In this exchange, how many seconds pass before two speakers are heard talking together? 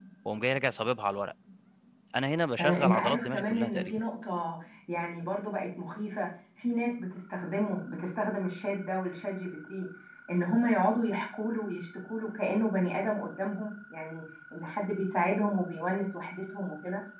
2.6 s

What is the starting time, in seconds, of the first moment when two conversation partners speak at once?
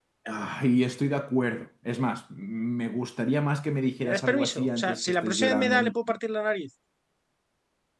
4.0 s

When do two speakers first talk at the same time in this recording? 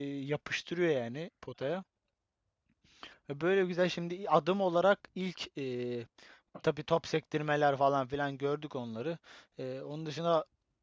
none

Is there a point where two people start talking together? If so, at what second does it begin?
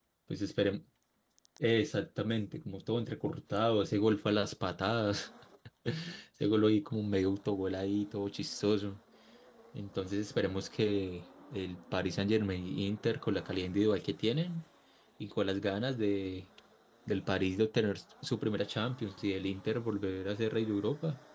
none

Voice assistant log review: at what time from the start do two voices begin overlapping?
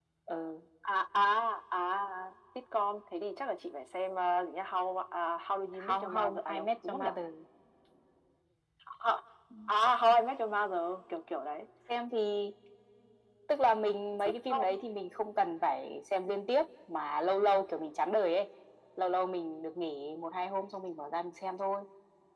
5.8 s

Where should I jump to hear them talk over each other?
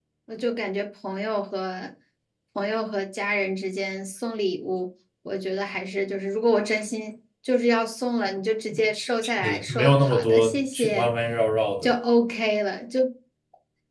9.4 s

